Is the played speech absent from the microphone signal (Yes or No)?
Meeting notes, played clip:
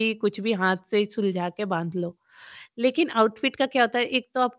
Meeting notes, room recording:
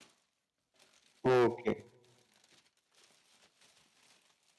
Yes